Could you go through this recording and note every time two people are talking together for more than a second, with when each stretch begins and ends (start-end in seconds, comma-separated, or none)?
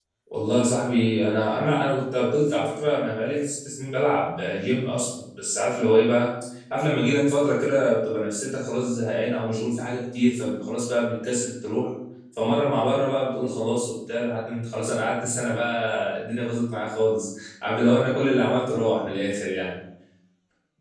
none